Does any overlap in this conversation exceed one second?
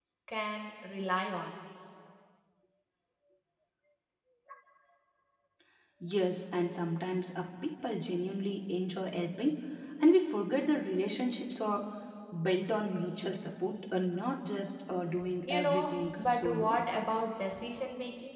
Yes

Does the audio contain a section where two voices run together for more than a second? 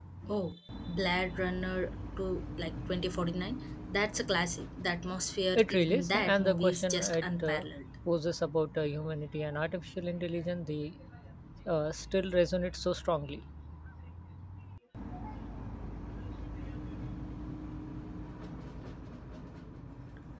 Yes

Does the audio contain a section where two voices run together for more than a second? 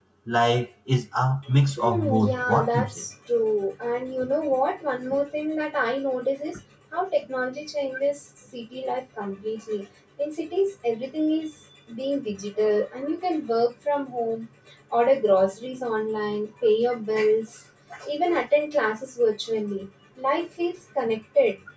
Yes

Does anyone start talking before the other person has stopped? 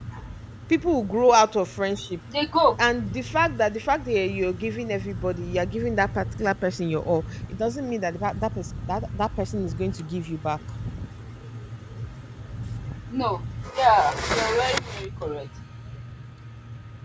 No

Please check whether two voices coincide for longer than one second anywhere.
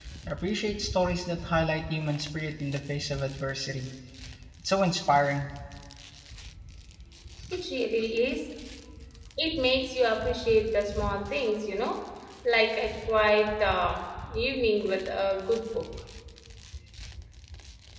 No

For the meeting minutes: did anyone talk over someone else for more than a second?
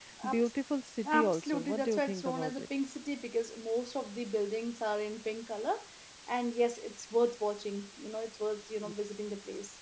Yes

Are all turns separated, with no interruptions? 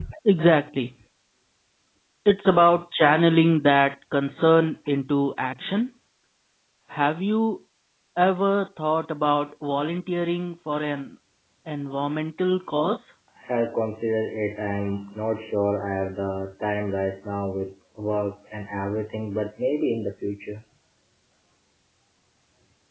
Yes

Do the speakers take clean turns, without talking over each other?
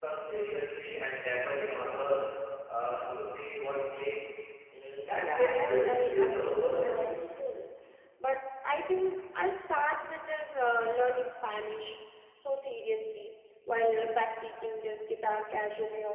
No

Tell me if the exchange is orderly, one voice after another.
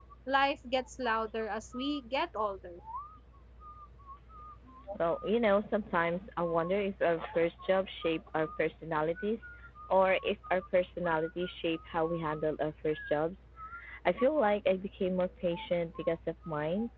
Yes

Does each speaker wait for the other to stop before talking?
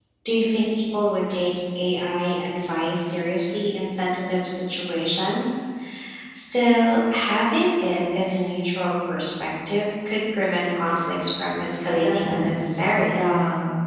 No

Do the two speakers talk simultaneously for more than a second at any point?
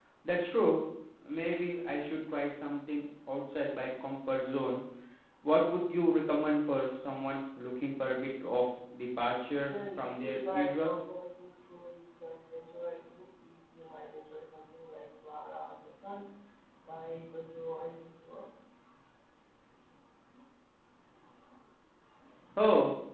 Yes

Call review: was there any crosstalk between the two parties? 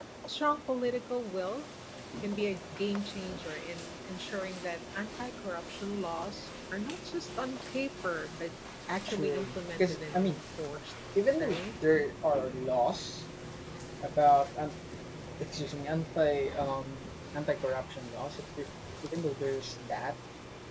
Yes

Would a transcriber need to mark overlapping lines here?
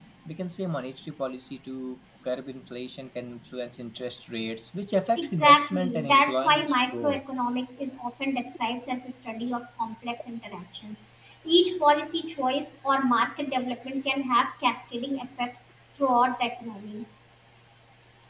Yes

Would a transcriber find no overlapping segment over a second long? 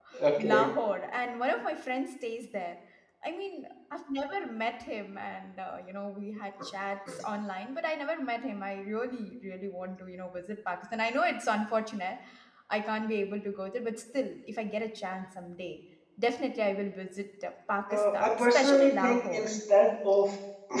No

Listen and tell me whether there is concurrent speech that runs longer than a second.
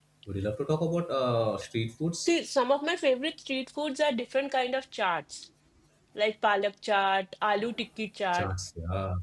No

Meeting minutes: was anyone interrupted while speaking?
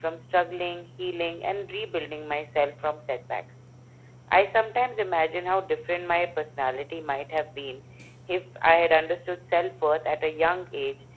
No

